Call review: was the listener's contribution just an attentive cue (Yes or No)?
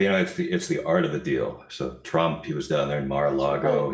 Yes